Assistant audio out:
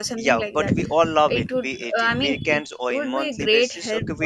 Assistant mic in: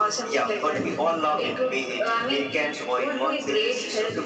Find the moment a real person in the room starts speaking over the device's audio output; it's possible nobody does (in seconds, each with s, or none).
none